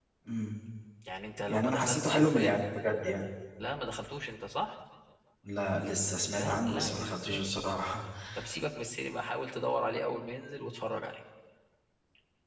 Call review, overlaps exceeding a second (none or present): present